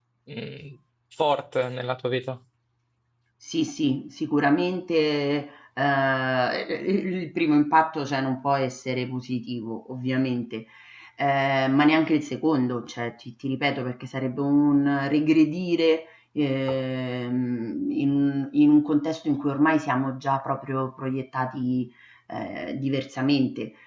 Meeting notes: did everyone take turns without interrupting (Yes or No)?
Yes